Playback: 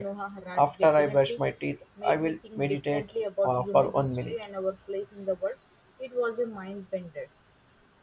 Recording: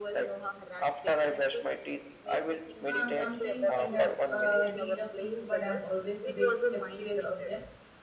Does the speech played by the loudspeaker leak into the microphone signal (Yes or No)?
Yes